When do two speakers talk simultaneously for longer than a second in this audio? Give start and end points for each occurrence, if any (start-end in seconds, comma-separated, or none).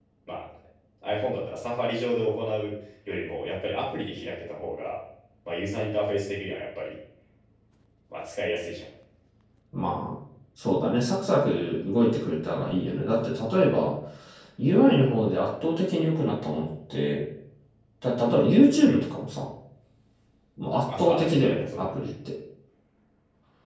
20.9-22.1